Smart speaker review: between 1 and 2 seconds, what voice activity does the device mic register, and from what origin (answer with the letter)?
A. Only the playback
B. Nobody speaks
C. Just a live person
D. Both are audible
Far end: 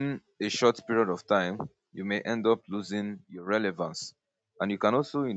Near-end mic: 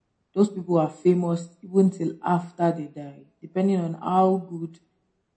C